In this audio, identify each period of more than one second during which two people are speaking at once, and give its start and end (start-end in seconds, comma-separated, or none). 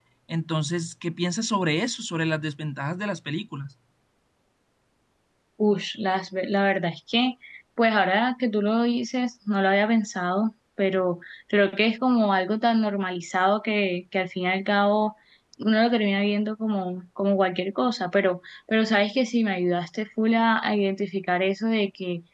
none